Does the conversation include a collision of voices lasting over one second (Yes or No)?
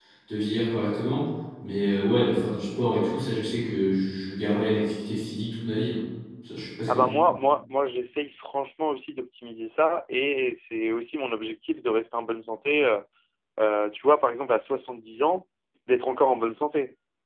No